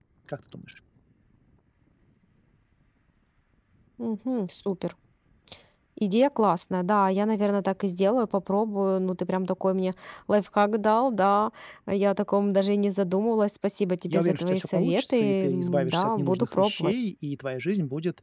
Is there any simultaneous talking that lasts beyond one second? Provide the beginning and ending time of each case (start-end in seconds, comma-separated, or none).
14.1-17.0